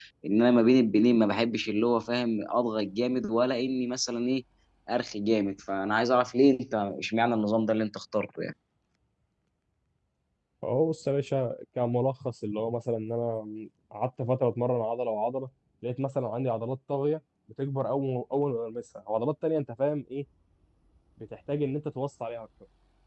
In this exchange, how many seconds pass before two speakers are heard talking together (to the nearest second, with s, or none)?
none